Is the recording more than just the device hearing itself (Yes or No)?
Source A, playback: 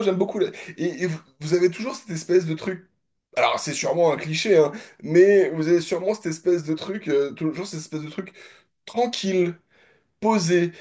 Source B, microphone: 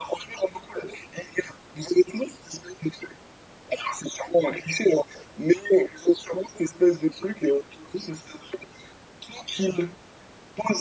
No